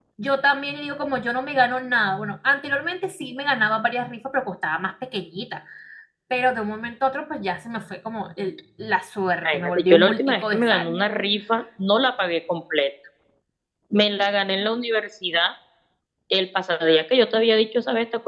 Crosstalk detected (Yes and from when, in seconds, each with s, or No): Yes, from 9.4 s